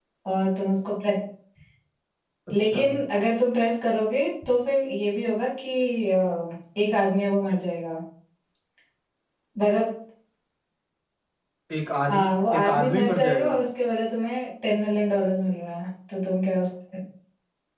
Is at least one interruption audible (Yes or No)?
Yes